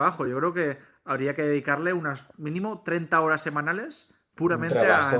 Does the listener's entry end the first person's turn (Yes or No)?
Yes